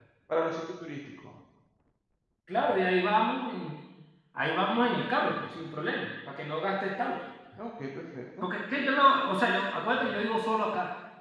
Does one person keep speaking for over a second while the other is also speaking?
No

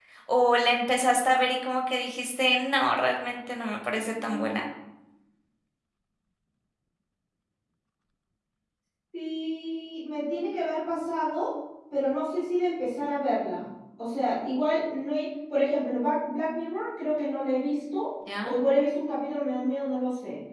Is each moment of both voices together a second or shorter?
Yes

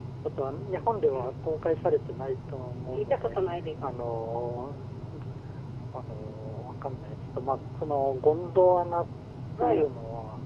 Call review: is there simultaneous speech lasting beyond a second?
No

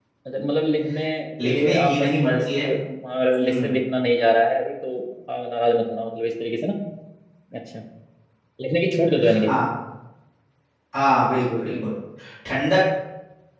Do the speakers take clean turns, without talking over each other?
No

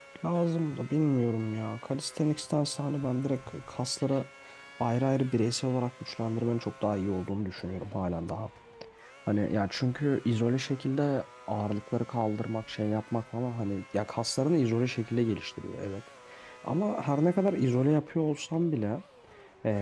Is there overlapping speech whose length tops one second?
No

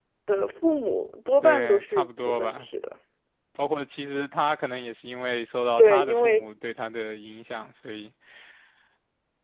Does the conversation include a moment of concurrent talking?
Yes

